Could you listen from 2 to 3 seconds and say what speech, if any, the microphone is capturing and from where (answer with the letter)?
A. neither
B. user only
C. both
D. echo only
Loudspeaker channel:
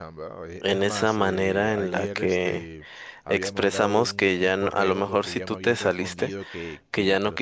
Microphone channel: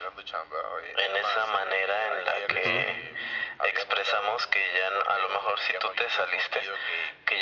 C